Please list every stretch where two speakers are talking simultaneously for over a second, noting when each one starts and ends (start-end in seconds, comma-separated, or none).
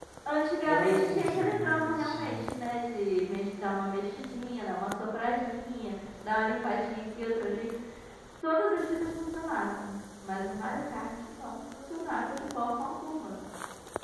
0.7-2.2